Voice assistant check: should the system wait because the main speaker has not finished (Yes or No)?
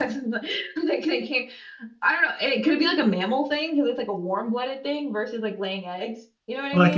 No